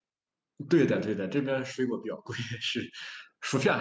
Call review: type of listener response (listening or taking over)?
listening